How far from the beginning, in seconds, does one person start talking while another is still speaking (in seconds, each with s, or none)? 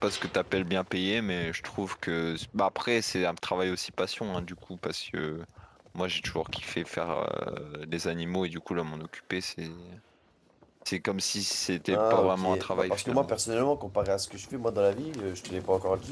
11.9 s